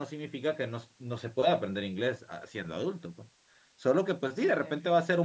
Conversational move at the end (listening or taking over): listening